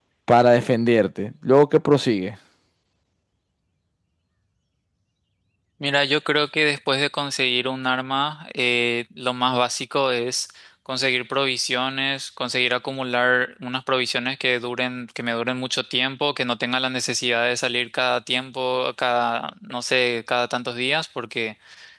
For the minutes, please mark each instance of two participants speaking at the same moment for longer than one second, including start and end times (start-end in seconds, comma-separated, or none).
none